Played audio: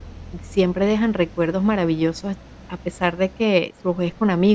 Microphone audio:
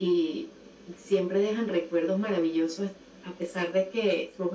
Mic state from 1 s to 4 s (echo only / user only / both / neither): echo only